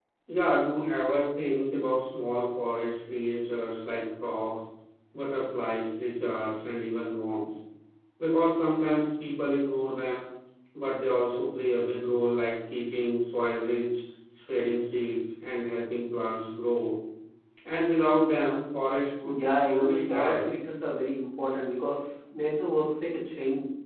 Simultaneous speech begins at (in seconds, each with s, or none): 19.2 s